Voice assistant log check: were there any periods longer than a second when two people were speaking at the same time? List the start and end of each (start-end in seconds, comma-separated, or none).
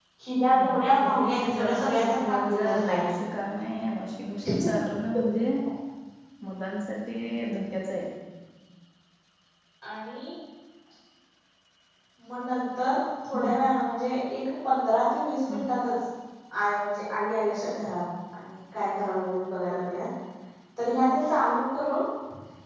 0.7-3.1